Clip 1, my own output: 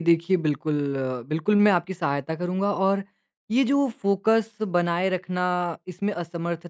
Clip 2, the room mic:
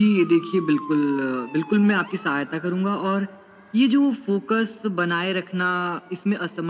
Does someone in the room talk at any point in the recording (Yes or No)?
No